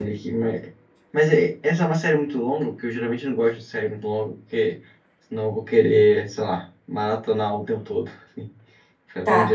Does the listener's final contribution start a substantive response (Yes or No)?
Yes